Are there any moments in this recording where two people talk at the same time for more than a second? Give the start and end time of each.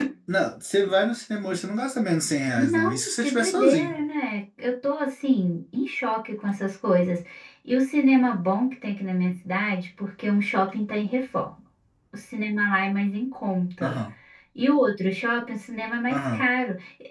2.5-4.0

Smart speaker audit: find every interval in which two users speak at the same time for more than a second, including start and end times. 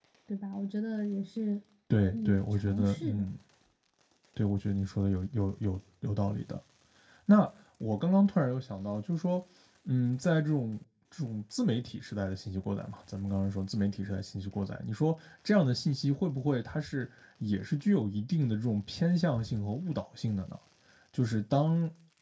2.0-3.2

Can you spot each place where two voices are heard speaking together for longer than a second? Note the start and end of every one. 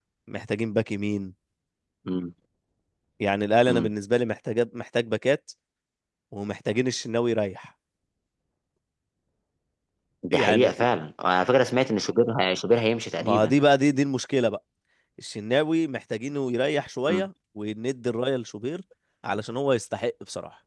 none

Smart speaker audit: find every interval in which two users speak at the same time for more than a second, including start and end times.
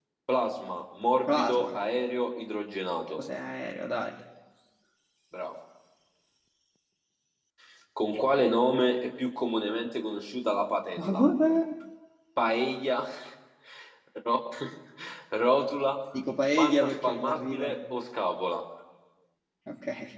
16.6-17.8

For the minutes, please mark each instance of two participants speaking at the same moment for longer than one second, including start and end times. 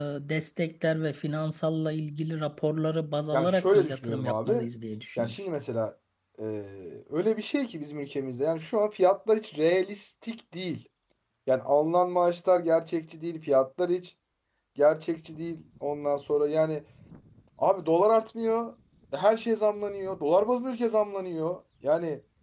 3.3-4.6

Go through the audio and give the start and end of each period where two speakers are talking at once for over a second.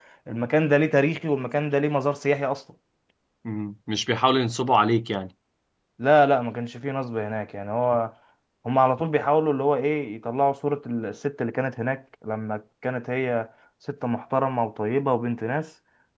none

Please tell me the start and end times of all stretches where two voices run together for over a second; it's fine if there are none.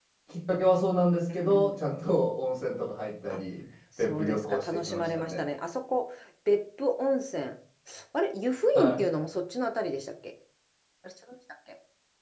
4.0-5.4

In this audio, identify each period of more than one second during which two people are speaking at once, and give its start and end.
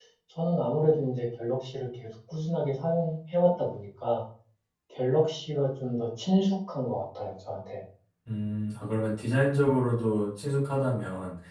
none

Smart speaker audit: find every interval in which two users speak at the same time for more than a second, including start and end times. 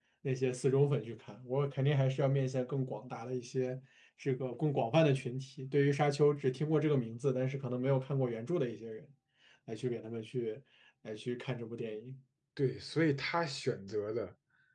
none

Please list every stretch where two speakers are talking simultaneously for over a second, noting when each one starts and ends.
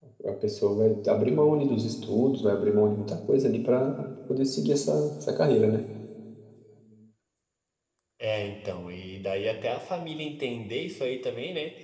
none

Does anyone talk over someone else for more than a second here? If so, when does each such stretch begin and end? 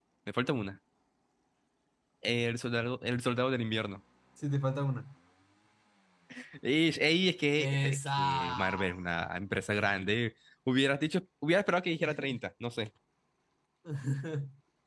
7.6-8.8

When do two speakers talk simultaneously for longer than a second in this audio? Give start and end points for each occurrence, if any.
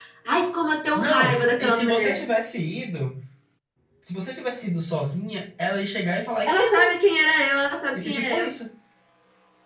0.9-2.2

